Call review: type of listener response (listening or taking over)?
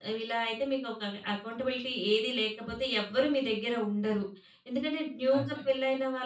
listening